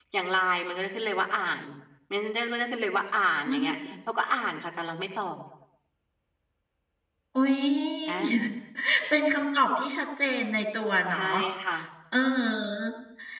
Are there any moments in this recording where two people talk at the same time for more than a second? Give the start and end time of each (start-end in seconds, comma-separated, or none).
none